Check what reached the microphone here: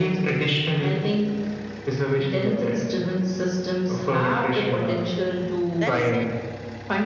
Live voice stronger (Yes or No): No